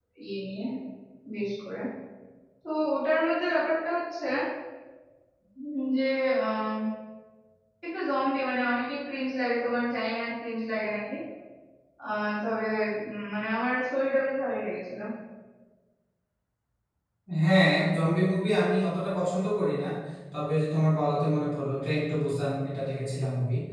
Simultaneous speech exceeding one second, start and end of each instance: none

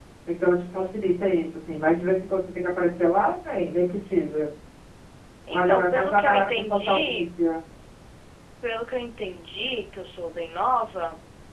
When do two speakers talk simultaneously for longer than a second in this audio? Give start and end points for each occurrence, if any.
5.5-7.3

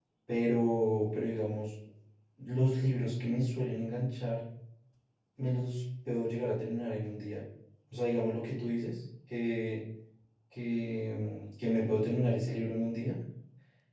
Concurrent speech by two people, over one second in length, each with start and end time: none

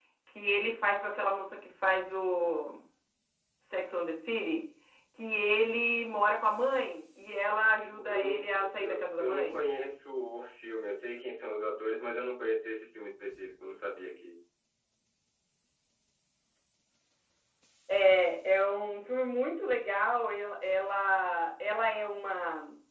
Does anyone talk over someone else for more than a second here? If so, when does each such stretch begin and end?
7.8-9.6

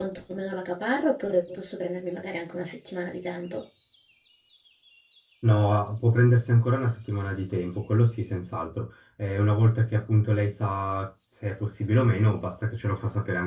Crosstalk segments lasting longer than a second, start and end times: none

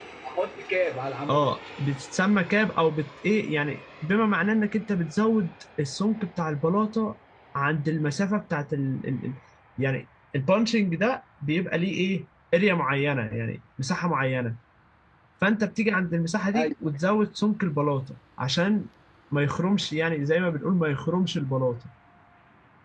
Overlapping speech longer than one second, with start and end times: none

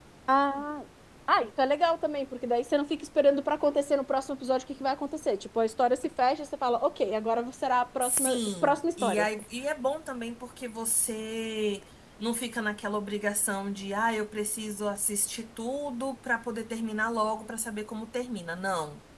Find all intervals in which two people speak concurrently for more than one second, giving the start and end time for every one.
8.0-9.3

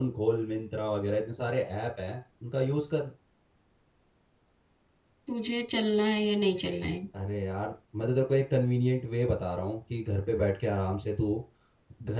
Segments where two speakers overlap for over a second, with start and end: none

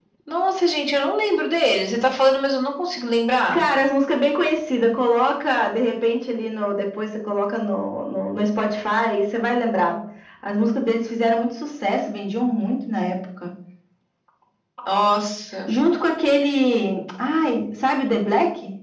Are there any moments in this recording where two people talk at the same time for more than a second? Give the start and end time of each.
none

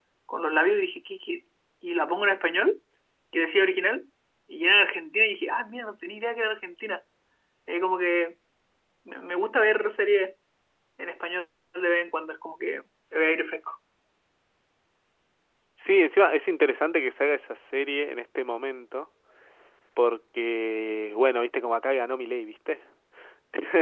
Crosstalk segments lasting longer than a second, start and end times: none

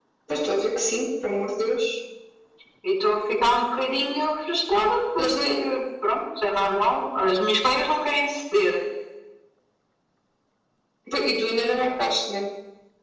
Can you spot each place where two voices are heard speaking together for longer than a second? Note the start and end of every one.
none

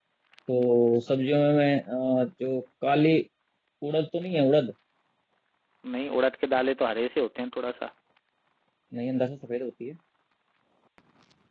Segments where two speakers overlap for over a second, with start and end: none

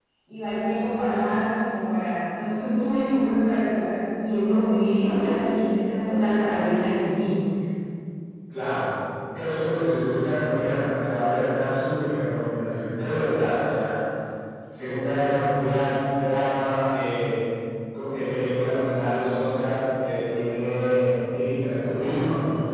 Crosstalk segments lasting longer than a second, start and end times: none

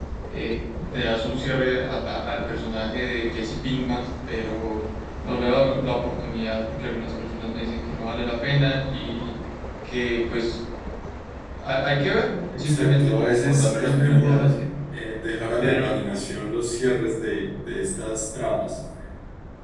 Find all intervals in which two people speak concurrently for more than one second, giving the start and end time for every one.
12.6-14.5

